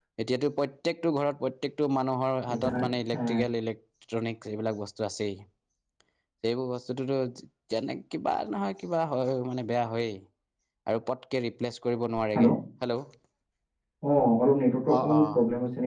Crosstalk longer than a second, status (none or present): none